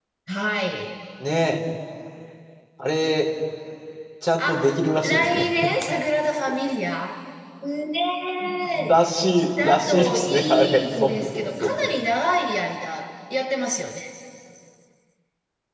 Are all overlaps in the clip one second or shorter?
No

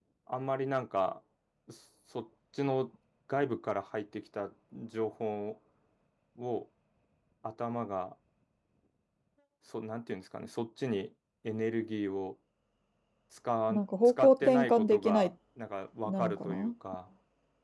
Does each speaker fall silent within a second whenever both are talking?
No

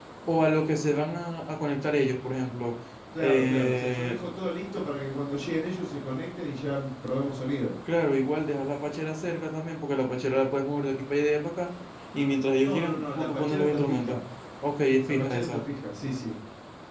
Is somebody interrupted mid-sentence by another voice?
Yes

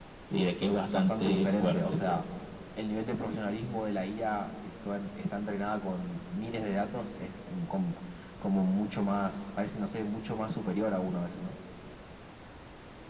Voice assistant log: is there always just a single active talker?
No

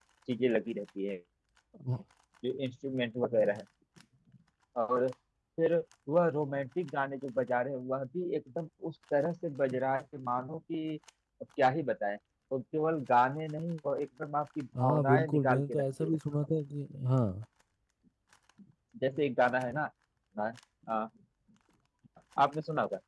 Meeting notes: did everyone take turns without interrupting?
No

